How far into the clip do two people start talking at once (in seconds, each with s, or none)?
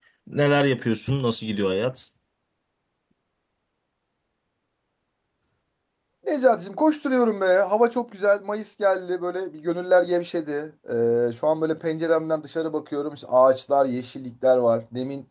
none